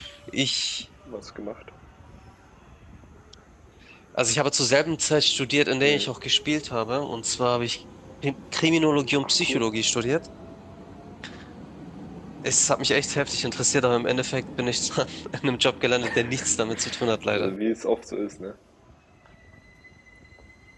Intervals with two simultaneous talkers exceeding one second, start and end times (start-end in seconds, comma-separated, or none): none